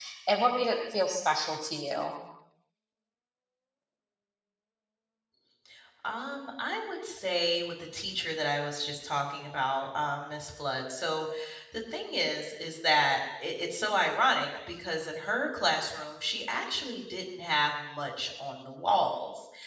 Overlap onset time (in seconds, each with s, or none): none